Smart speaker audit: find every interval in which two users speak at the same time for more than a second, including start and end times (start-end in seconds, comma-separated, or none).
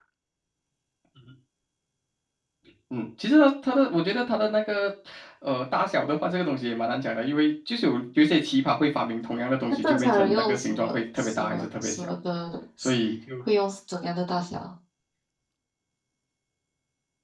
9.8-12.1